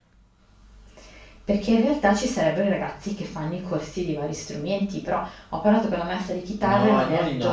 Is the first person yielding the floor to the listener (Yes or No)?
Yes